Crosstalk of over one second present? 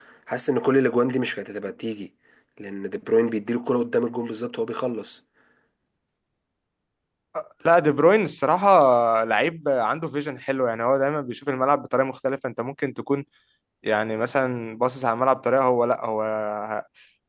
No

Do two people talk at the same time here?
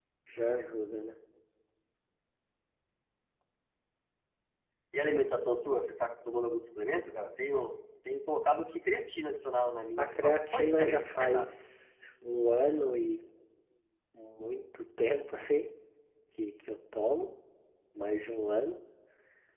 Yes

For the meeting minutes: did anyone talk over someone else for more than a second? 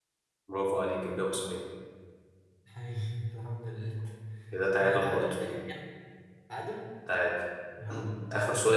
No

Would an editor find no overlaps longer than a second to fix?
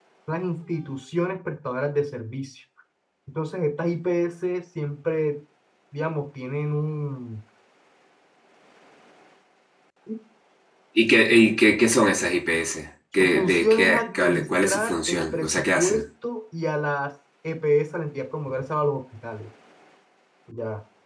No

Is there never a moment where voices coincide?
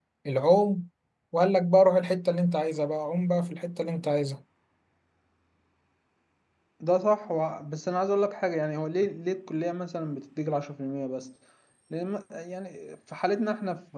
Yes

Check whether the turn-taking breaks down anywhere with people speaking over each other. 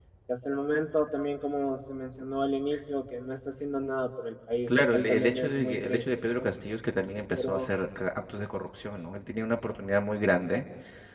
Yes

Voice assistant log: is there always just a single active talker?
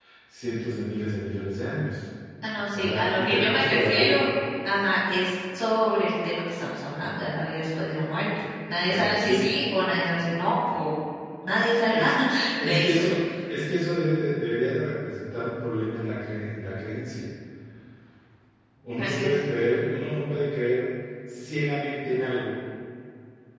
No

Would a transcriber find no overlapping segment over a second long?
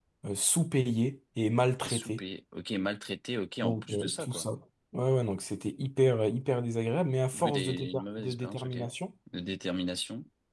No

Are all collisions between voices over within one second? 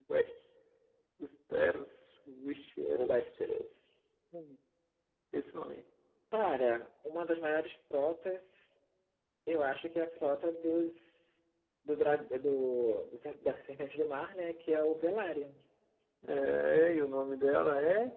Yes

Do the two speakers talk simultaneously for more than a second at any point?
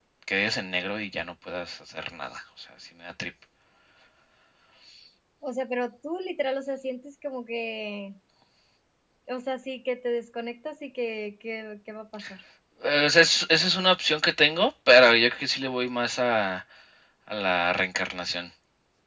No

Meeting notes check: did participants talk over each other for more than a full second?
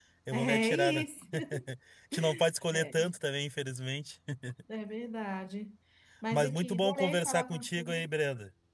Yes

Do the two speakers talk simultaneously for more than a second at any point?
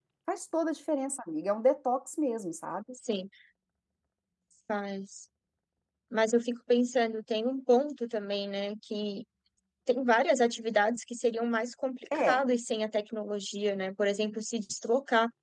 No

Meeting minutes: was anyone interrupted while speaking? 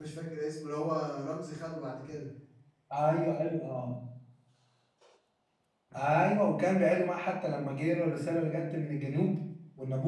No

